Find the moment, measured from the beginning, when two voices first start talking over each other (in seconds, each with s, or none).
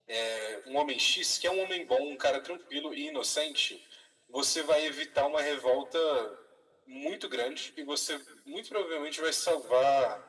none